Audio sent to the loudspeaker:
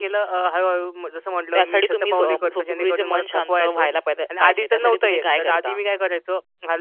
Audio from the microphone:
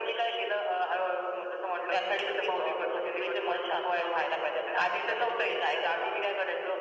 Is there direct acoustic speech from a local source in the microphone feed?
No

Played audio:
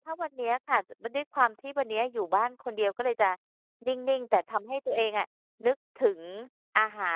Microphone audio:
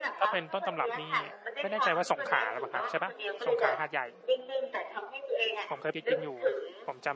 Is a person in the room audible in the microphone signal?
Yes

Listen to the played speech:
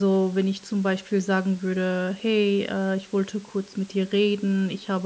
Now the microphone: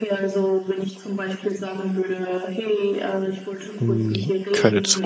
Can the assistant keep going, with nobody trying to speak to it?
No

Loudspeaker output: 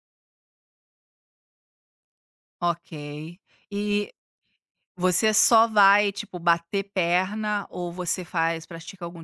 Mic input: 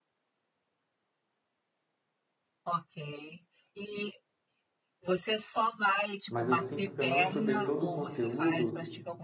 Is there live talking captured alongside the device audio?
Yes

